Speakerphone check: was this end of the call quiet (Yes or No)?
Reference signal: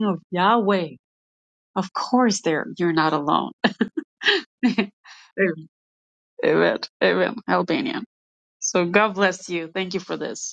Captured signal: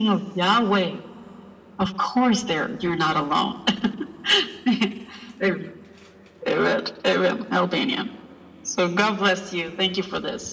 Yes